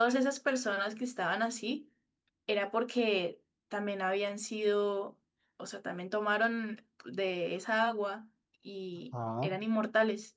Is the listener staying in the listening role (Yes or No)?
Yes